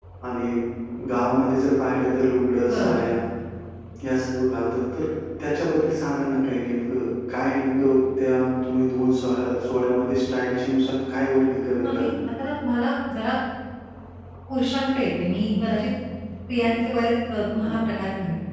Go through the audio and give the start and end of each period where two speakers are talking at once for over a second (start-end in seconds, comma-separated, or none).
none